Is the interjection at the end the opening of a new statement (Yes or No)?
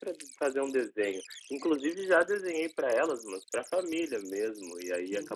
No